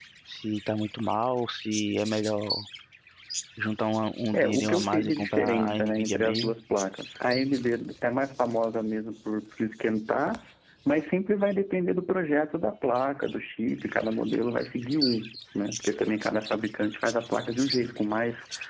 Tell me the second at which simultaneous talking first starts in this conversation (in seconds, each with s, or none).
4.3 s